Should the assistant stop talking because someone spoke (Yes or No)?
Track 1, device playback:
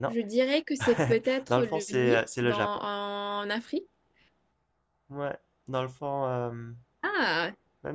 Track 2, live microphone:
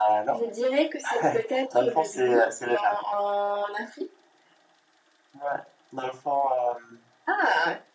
No